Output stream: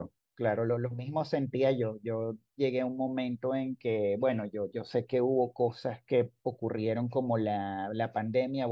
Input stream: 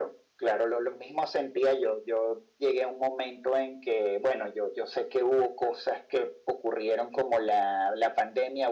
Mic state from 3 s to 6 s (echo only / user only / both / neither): echo only